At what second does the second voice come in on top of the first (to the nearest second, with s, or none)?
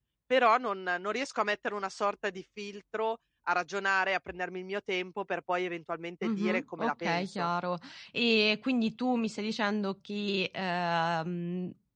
6 s